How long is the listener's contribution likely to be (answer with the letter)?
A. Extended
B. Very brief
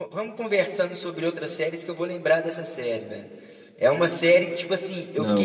B